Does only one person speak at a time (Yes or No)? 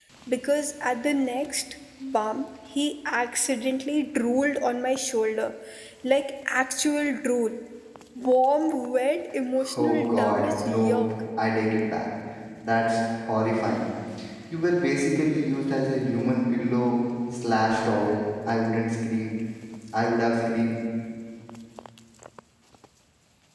No